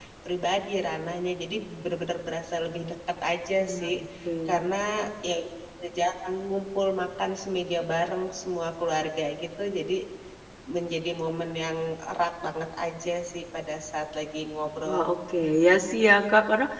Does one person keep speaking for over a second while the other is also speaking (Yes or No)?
No